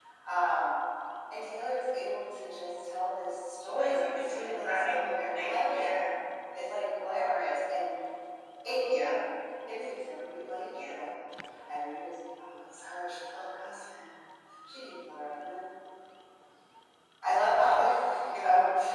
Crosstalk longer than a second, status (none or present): present